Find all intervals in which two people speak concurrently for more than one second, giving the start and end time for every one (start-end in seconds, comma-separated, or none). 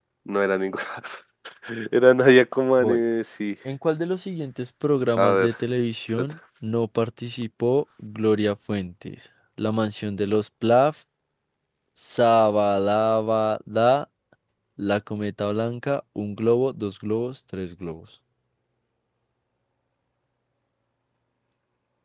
none